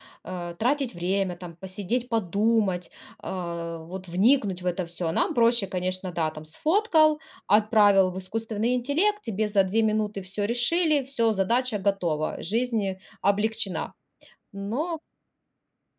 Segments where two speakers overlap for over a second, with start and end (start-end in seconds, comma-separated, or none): none